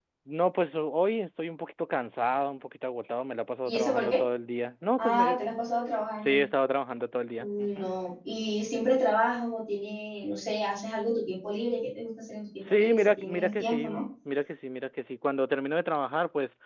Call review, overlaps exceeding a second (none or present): present